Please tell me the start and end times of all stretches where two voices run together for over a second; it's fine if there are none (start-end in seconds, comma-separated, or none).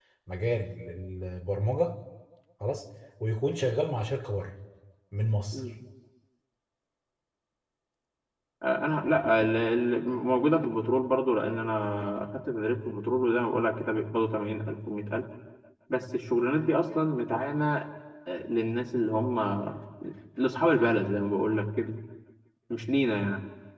none